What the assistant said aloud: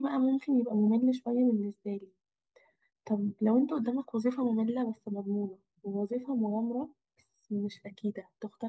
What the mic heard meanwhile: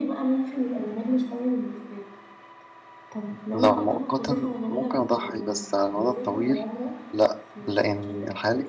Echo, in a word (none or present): present